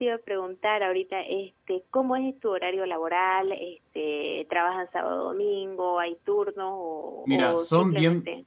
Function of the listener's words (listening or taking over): taking over